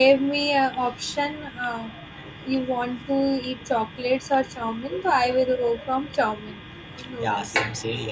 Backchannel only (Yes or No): No